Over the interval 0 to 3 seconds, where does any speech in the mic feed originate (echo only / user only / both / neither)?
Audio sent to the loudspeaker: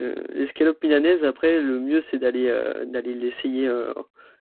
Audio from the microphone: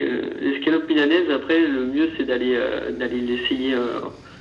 echo only